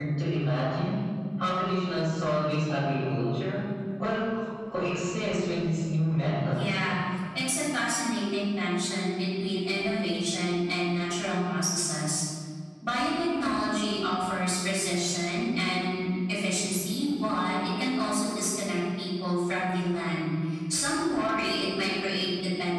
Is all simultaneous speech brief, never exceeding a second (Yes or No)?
Yes